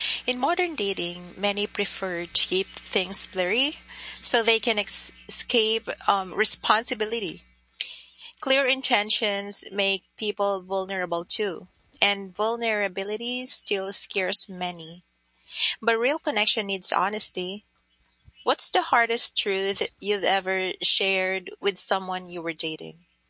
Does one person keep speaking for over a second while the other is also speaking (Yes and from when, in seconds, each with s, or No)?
No